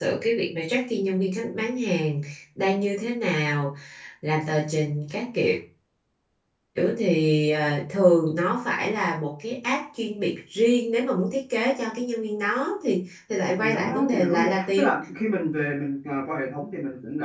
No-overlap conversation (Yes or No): No